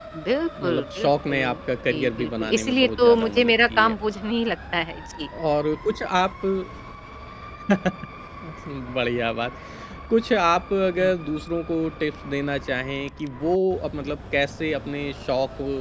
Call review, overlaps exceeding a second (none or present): present